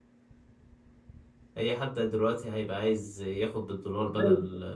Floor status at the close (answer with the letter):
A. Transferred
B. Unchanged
B